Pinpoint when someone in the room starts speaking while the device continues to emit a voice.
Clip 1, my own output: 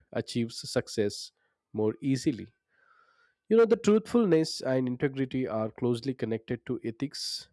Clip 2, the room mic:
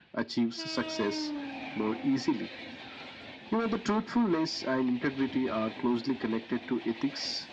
none

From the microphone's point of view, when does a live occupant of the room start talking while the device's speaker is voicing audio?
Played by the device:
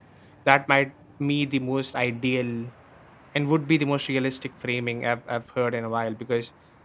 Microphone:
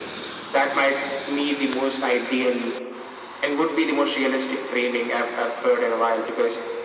none

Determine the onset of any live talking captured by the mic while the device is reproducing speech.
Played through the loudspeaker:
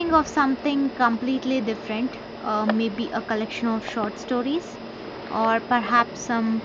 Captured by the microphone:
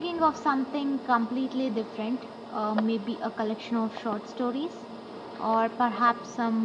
none

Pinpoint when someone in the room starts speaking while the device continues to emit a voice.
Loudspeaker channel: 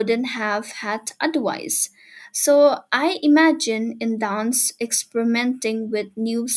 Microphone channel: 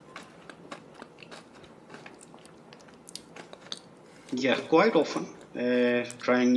4.3 s

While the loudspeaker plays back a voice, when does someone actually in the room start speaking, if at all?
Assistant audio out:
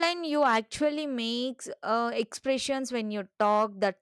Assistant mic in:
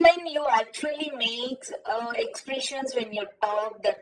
none

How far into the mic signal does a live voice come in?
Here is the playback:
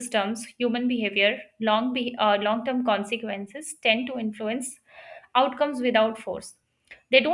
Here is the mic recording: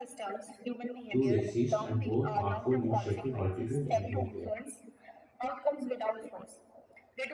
1.1 s

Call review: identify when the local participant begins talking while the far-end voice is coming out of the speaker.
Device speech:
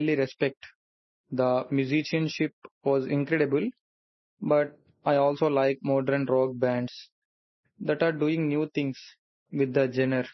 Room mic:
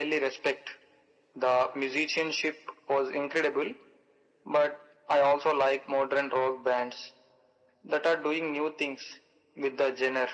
none

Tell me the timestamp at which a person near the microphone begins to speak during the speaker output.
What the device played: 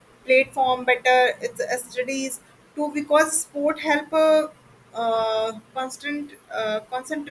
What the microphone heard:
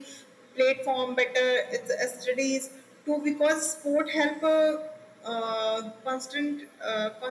none

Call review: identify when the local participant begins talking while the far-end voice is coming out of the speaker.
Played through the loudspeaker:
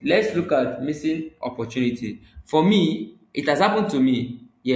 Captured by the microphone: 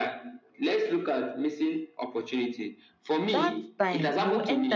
3.3 s

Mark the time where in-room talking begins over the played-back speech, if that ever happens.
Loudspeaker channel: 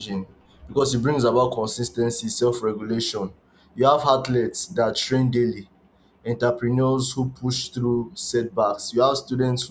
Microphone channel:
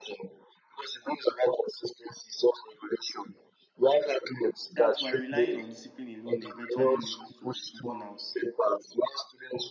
4.8 s

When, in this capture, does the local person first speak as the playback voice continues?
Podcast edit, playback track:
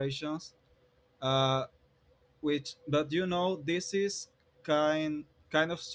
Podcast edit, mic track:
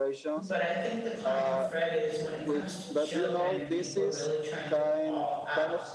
0.3 s

